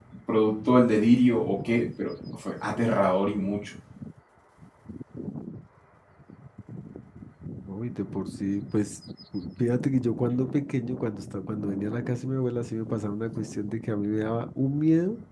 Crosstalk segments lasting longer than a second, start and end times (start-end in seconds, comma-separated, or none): none